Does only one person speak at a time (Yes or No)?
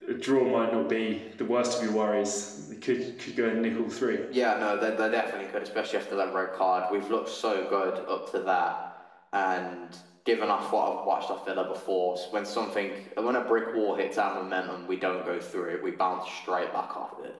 Yes